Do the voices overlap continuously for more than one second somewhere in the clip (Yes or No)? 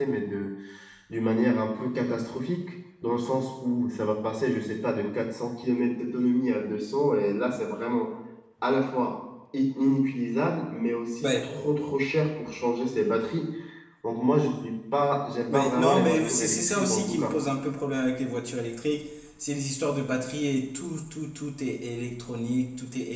Yes